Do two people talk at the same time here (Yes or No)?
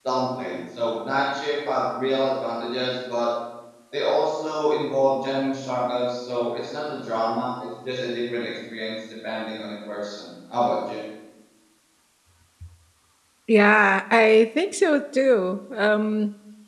No